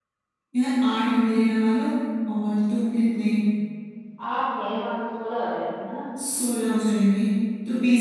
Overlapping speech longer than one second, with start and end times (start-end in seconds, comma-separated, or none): none